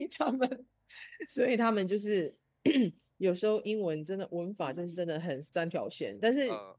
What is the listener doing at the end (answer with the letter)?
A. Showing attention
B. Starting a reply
A